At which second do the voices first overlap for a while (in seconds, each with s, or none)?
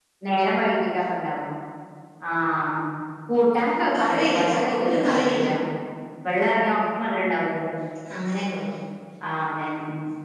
4.0 s